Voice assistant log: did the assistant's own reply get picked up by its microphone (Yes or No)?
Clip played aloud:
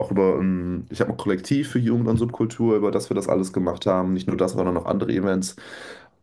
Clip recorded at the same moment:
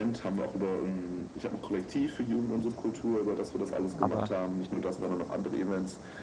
Yes